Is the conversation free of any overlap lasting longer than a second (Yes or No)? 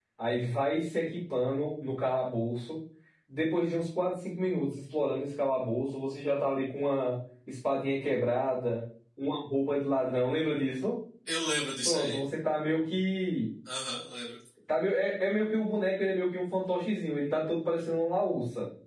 Yes